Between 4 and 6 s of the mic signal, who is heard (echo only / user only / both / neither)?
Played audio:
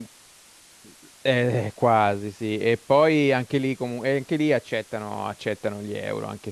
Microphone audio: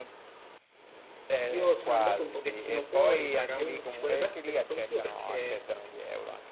both